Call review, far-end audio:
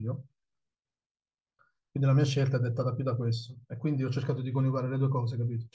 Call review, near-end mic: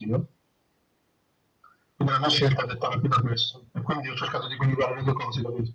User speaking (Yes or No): No